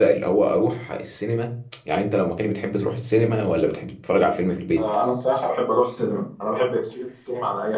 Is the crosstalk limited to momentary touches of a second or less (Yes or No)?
Yes